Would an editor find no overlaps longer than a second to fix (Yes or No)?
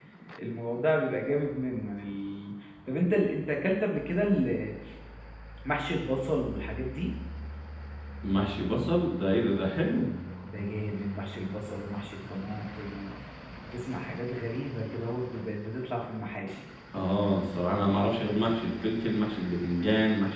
Yes